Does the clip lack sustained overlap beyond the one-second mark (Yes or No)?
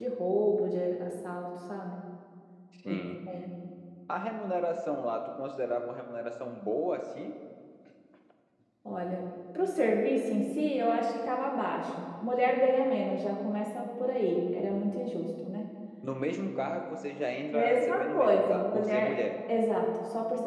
No